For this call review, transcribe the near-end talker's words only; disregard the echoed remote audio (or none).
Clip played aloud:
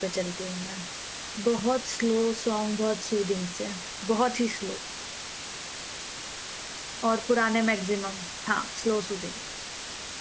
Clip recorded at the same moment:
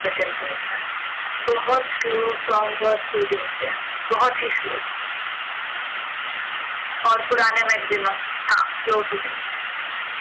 none